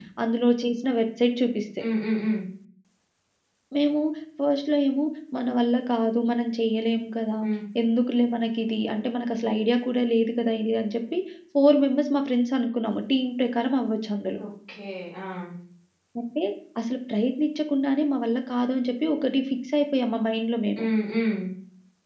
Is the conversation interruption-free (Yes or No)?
Yes